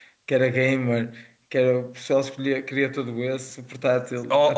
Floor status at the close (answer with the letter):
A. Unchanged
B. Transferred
B